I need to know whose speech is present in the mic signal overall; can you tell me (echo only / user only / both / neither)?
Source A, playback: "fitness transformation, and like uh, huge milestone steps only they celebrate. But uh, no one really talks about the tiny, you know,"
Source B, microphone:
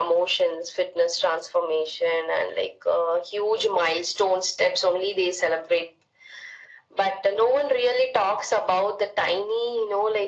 echo only